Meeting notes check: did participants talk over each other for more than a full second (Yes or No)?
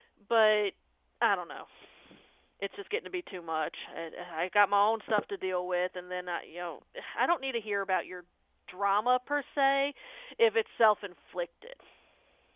No